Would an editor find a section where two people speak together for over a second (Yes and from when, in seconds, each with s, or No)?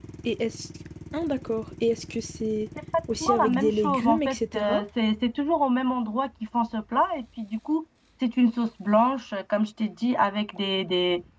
Yes, from 3.2 s